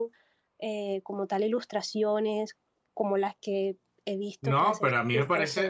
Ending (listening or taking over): taking over